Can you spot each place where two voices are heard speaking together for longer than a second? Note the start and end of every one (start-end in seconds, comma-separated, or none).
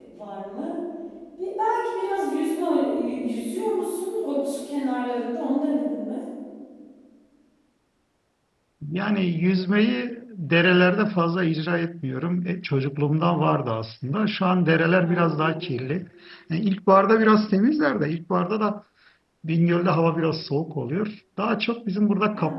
none